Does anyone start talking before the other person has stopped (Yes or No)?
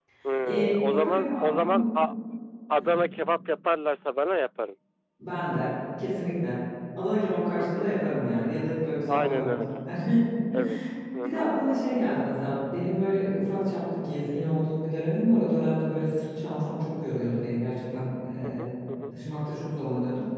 Yes